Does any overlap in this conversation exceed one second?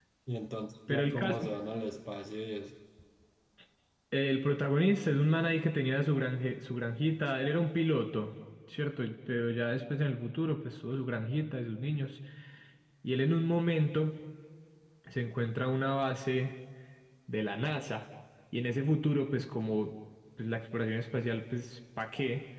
No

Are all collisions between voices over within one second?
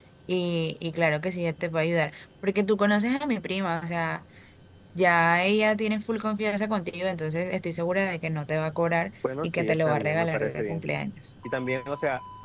No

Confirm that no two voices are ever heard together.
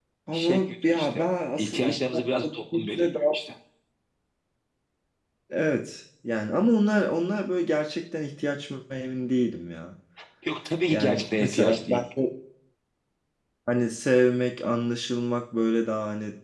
No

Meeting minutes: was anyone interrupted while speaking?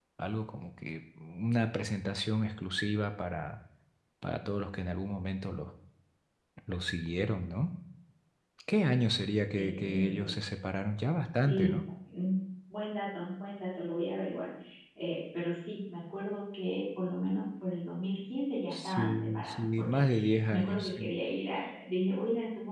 Yes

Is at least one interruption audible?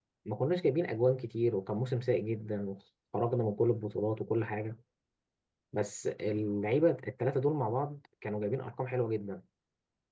No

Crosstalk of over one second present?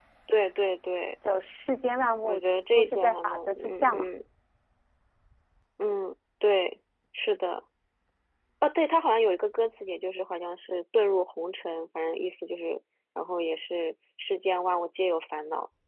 Yes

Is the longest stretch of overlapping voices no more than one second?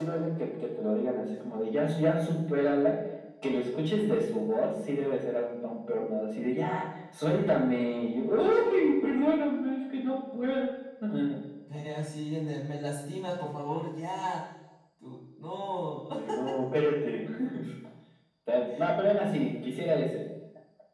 Yes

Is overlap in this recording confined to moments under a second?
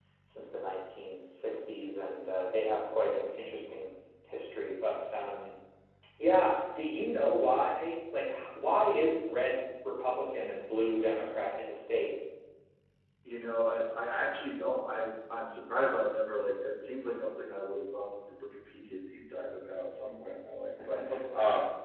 Yes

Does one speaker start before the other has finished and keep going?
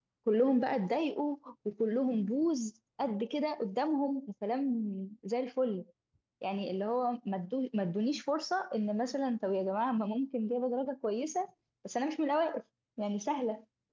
No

